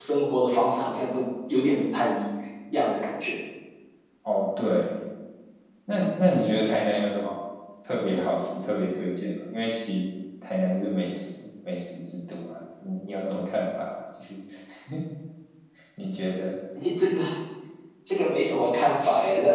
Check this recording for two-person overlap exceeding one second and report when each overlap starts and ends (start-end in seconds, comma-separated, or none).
none